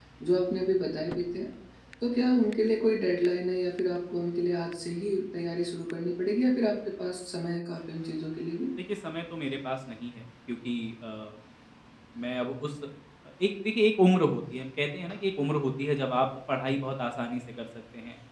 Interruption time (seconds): none

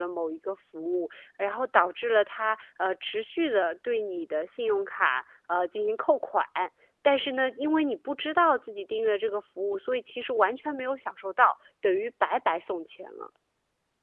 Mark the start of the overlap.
none

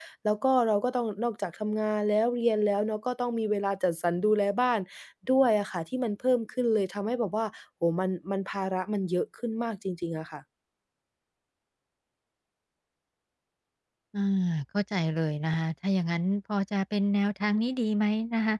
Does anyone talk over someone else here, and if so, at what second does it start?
none

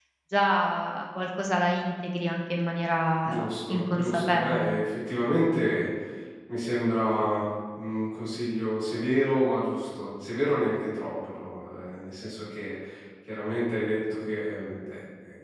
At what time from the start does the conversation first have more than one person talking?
3.2 s

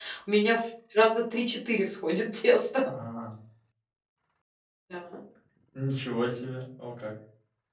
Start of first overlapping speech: none

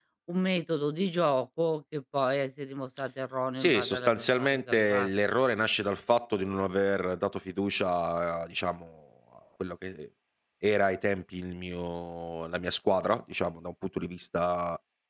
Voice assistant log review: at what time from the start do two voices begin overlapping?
3.6 s

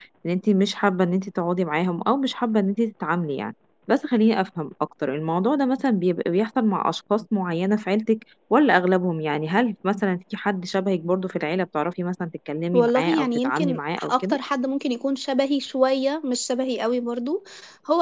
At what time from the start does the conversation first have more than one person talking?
12.7 s

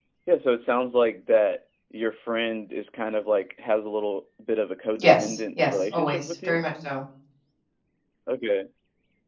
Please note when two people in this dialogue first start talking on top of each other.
5.0 s

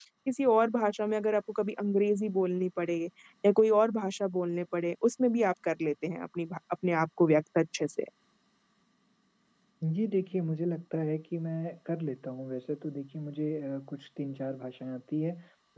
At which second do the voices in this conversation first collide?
none

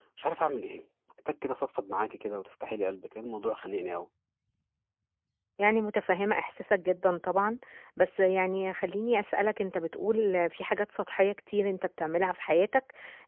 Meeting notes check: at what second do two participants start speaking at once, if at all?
none

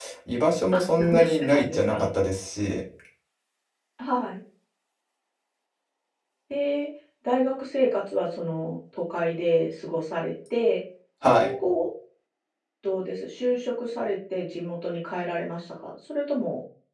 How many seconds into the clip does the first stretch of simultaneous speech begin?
0.7 s

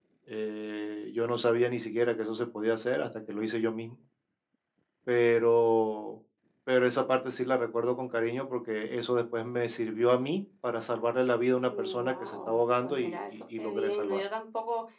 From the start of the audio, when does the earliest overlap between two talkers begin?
11.7 s

